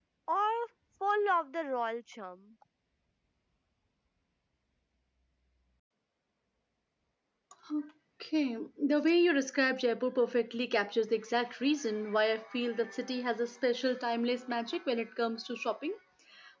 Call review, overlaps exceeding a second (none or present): none